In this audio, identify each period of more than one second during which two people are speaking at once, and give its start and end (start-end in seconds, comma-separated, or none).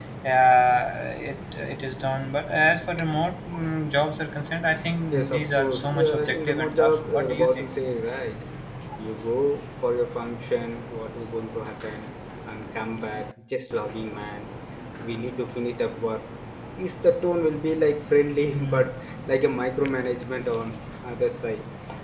5.1-7.7